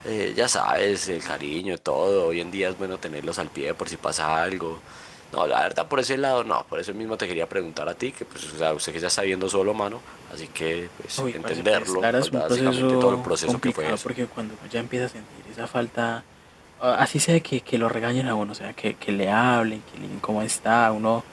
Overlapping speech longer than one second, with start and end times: 11.2-14.1

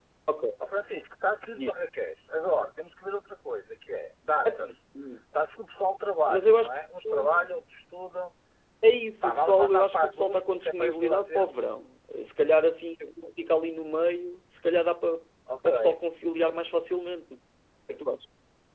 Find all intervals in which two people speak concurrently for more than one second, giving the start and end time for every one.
9.2-11.5

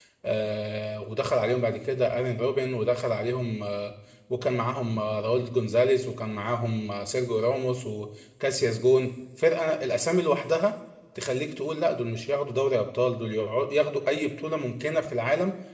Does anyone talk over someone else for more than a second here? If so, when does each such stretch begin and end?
none

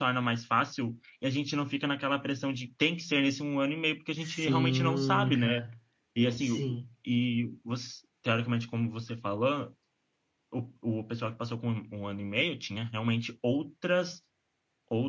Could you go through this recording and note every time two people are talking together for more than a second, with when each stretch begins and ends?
4.2-5.7

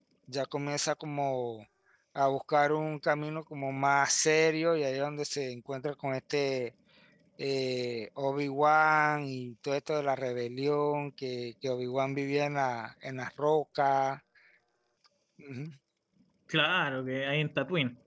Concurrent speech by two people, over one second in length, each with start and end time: none

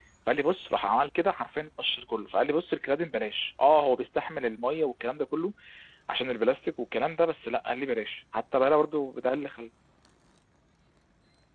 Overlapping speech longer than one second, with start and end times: none

